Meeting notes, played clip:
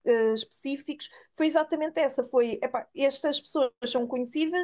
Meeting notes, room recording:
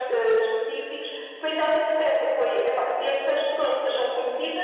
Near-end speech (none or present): none